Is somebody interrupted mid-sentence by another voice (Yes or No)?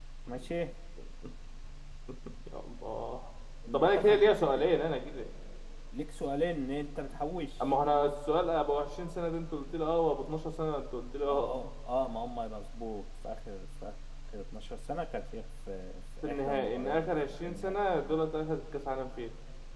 Yes